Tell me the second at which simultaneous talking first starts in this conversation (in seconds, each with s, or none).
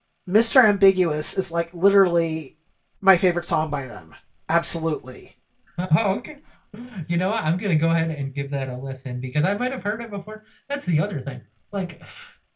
none